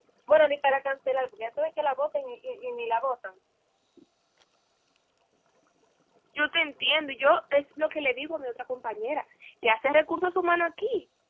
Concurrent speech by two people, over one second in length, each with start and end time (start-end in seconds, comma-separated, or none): none